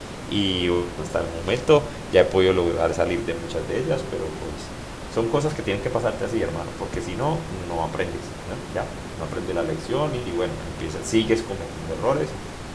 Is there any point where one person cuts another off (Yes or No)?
No